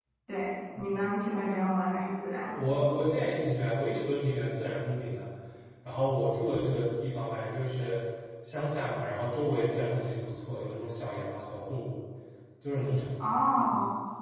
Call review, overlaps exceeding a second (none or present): none